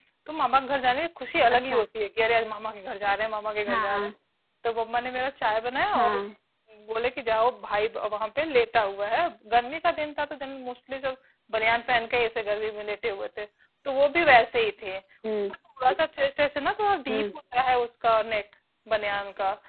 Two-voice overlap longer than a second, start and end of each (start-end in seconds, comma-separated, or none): none